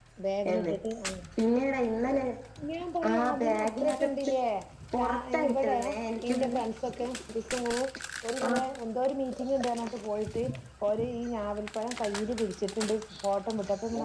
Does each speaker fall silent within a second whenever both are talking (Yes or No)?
No